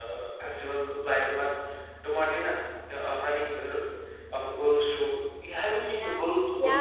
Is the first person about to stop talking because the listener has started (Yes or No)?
Yes